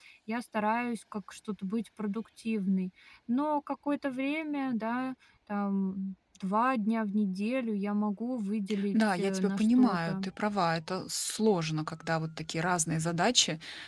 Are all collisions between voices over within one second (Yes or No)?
No